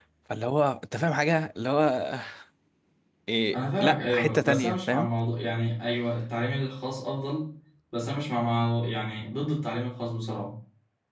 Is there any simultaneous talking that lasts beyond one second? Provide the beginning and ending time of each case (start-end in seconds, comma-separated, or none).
3.5-5.1